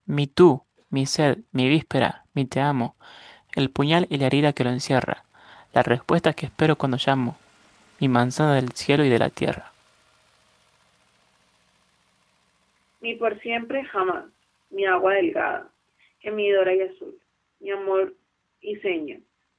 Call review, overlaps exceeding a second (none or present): none